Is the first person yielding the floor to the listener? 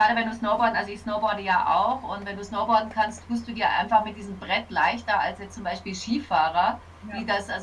No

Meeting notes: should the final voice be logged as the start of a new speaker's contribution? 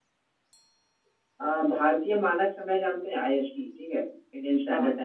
No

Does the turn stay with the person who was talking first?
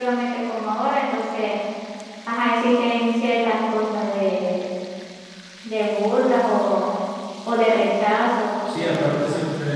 No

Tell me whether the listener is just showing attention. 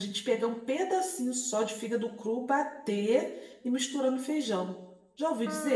No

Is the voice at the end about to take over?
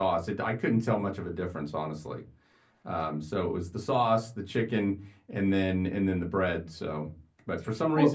No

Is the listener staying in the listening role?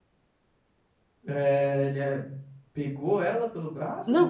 No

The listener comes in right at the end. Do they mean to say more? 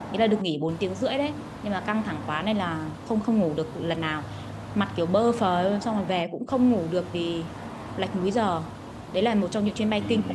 Yes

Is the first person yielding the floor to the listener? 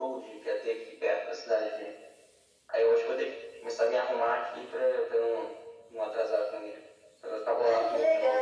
Yes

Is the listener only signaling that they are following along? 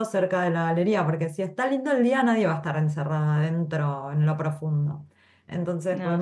Yes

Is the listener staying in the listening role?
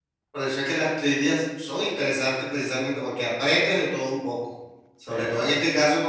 Yes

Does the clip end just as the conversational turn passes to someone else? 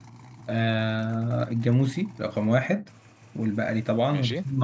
No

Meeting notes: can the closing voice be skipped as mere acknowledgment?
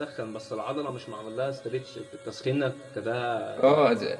No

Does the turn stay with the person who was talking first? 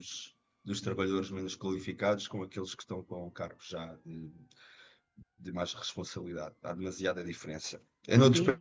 Yes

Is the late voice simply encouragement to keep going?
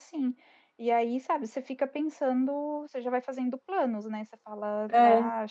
Yes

